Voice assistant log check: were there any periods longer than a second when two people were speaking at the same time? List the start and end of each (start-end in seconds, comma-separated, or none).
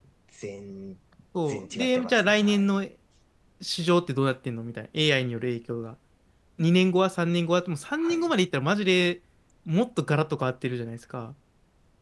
1.5-2.8